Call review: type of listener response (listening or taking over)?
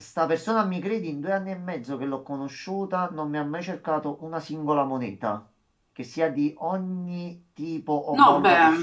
taking over